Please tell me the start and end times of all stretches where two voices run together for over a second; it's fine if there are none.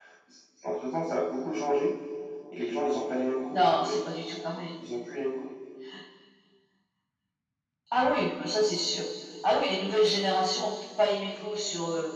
none

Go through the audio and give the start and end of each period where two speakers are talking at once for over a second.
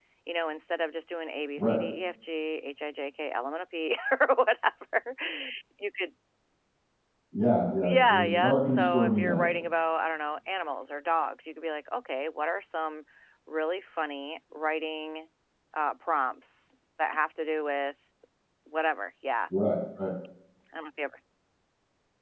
7.8-9.5

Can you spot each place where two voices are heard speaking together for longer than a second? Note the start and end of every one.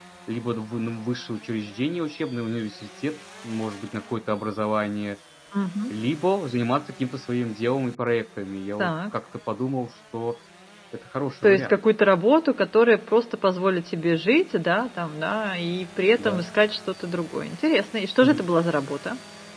none

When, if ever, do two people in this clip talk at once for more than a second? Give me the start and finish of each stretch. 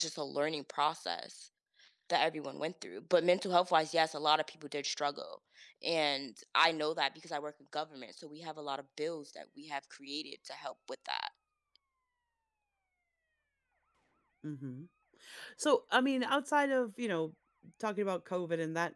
none

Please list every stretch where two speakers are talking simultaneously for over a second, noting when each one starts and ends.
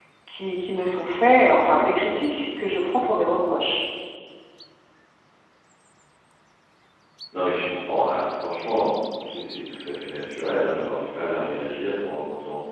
none

